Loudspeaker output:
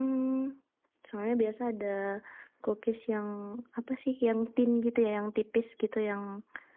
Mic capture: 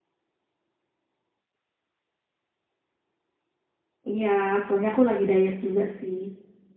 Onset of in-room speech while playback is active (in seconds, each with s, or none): 4.1 s